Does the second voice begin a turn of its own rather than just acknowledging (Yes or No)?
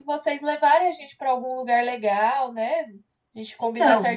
No